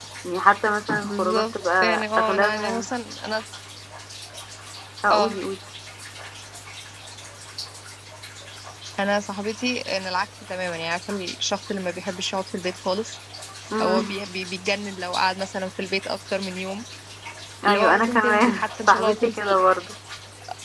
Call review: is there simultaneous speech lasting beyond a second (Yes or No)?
Yes